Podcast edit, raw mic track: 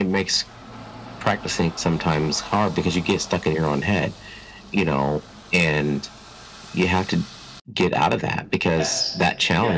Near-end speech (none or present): present